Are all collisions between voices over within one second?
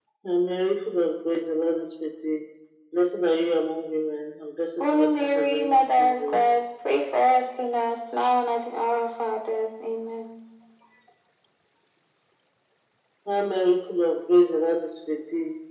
No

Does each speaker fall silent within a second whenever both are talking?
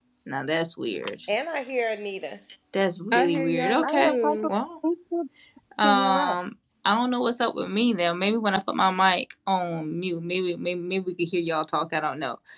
No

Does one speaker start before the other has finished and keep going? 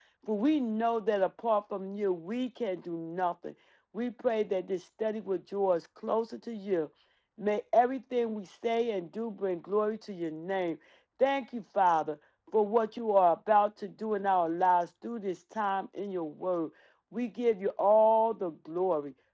No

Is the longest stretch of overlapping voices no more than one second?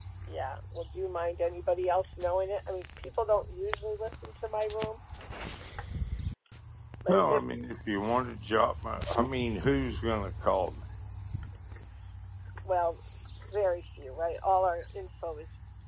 Yes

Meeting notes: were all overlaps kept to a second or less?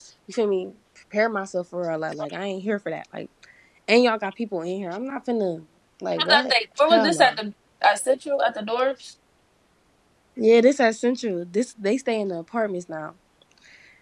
No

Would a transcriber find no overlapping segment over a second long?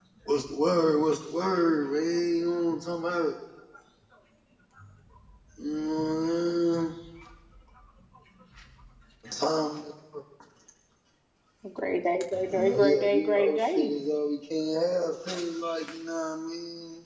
No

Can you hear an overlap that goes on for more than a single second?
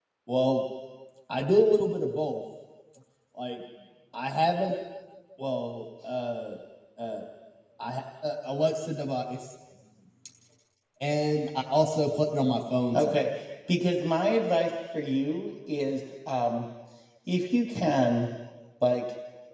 No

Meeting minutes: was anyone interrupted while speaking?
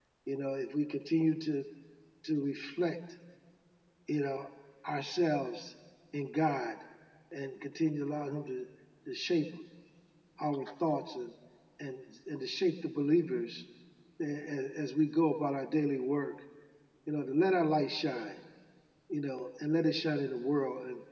No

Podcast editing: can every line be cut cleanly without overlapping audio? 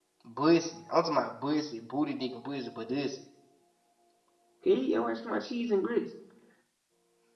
Yes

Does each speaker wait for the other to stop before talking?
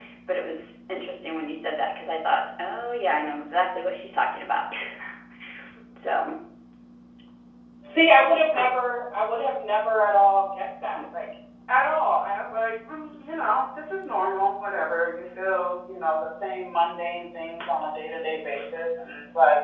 Yes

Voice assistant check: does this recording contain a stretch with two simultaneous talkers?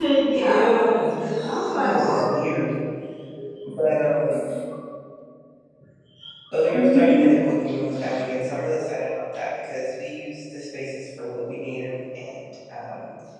Yes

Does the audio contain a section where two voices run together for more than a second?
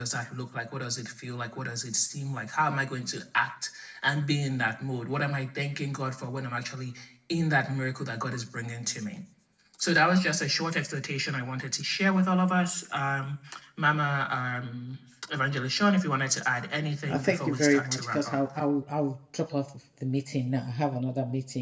Yes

